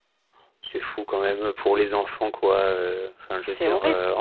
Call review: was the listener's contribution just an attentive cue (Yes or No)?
Yes